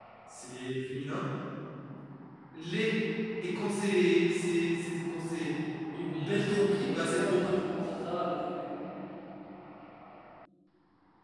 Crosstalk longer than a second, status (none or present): present